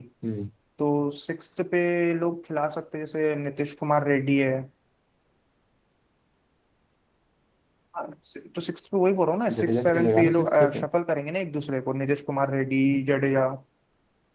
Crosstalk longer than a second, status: present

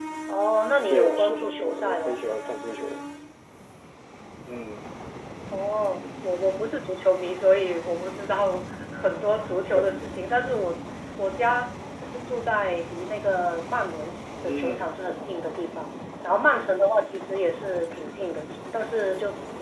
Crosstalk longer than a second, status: present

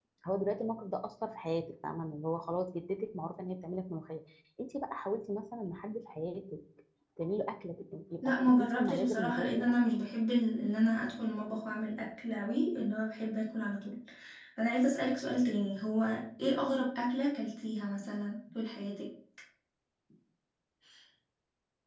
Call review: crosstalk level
present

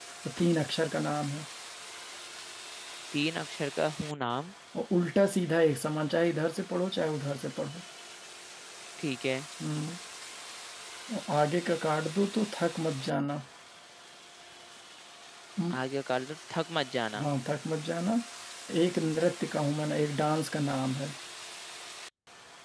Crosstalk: none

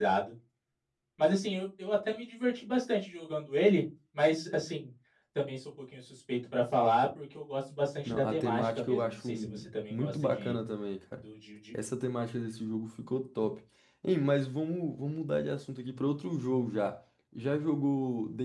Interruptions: present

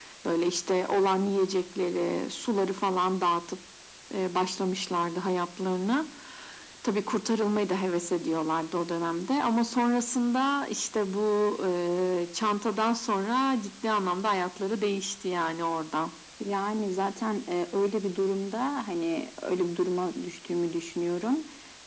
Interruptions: none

